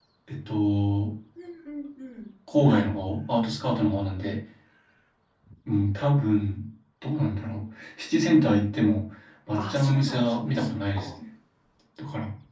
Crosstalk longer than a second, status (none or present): present